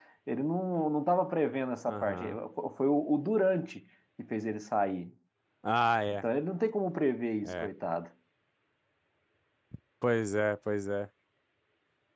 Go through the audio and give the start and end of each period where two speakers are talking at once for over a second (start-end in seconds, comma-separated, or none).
none